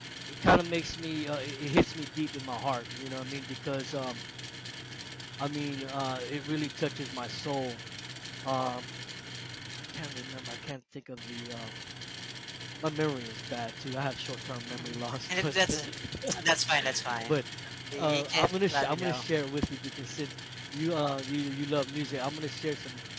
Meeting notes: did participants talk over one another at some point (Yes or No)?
Yes